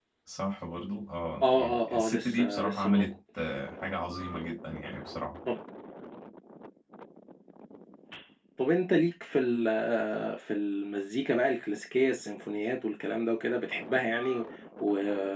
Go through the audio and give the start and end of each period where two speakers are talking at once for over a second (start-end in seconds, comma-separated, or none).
1.4-3.1